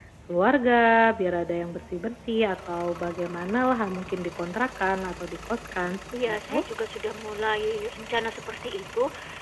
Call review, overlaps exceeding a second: none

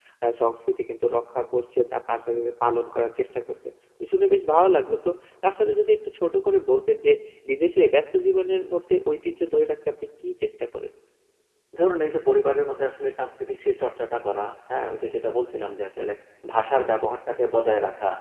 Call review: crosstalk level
none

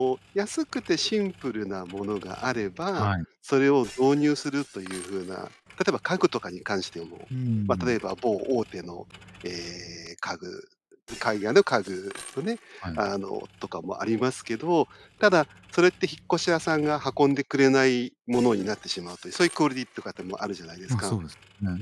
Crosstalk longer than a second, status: none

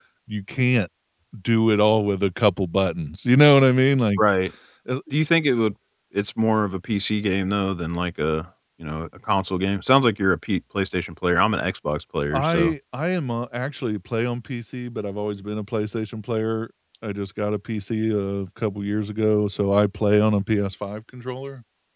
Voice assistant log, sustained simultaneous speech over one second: none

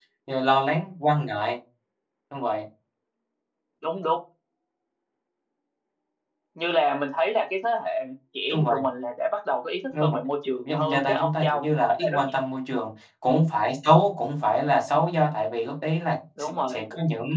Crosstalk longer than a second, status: present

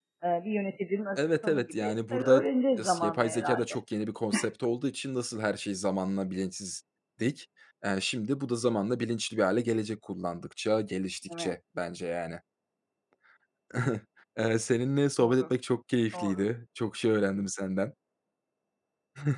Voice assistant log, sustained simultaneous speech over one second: present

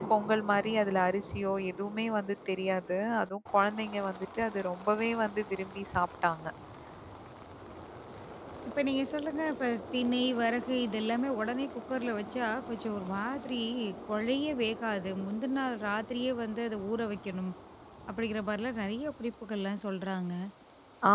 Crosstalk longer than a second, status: none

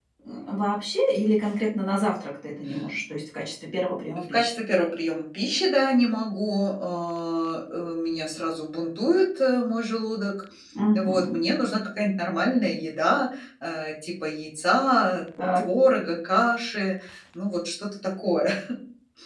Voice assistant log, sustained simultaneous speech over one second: none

